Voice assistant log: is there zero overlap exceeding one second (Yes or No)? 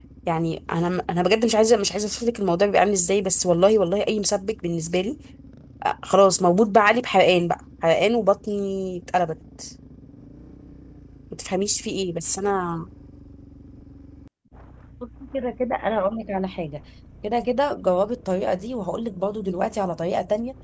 Yes